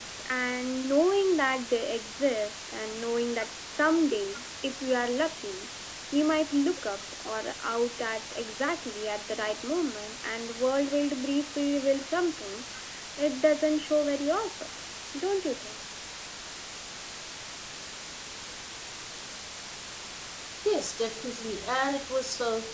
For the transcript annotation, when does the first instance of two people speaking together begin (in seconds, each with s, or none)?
none